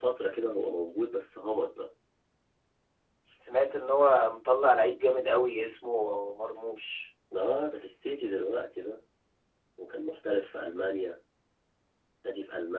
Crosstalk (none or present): none